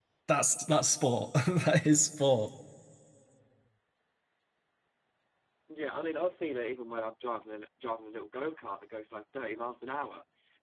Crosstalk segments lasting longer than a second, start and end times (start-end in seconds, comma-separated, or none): none